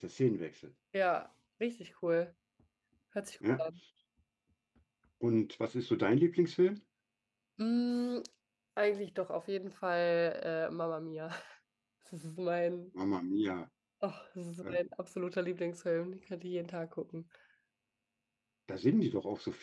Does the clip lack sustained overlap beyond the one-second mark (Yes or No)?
Yes